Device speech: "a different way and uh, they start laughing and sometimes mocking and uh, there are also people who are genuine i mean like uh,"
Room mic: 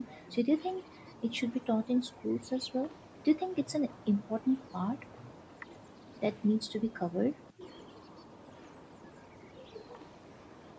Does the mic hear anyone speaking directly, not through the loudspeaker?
Yes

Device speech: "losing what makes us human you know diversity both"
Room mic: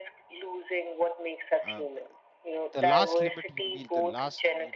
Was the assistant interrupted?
Yes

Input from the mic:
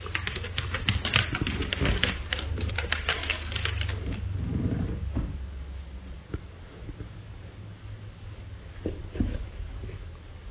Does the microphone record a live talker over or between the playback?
No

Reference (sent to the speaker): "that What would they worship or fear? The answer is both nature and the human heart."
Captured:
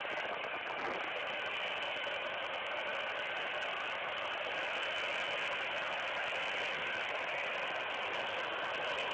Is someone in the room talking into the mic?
No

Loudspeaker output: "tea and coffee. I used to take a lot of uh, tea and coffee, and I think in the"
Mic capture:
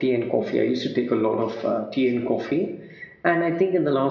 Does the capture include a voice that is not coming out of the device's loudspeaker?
No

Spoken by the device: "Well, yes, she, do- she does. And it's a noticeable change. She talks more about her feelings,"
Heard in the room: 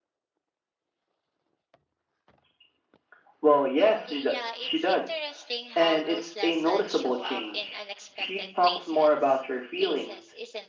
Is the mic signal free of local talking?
No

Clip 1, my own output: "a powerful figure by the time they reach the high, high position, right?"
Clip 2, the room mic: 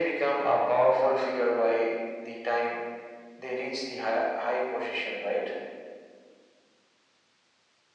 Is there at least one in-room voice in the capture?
No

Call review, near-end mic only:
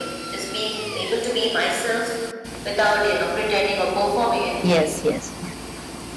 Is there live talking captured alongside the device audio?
Yes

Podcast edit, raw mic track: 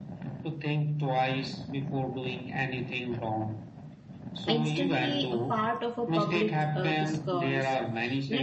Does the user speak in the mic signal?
Yes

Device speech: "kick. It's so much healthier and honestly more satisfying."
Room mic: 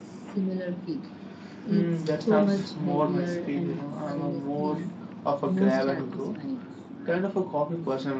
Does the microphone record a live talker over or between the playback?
Yes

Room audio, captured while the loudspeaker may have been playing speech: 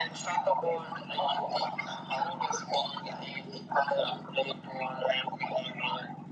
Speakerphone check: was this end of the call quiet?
Yes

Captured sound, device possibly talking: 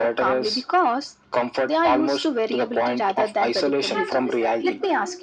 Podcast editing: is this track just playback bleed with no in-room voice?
No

